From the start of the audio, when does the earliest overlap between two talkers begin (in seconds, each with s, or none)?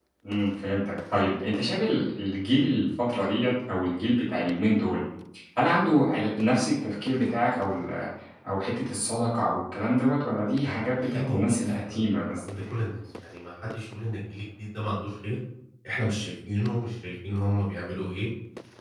10.6 s